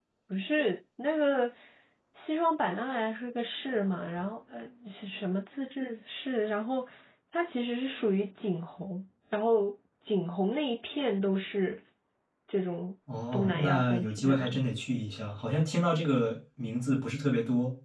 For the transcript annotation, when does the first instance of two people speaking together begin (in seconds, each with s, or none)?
13.3 s